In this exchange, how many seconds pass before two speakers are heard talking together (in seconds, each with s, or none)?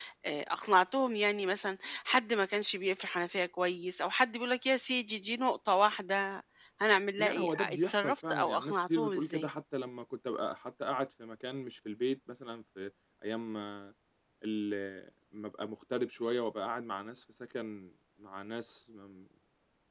7.2 s